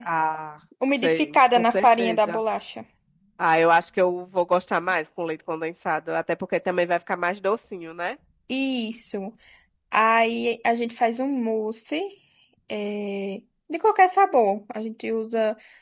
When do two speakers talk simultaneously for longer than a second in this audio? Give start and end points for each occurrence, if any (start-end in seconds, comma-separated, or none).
1.0-2.4